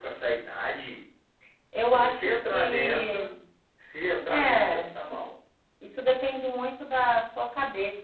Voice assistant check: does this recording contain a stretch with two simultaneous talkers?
Yes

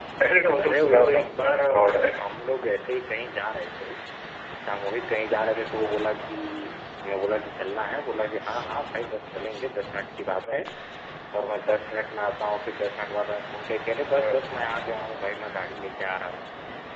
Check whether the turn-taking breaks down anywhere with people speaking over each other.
Yes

